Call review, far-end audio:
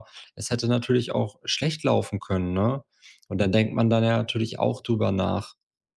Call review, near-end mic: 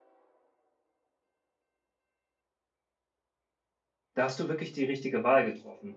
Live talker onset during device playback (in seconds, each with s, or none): 4.2 s